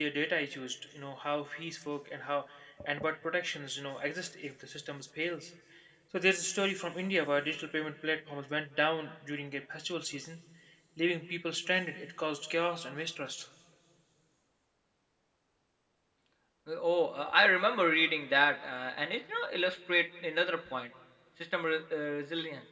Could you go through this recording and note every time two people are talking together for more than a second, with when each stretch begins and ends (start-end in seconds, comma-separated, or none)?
none